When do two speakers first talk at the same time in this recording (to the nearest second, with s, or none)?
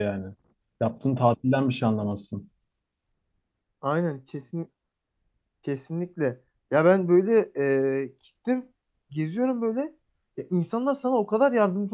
none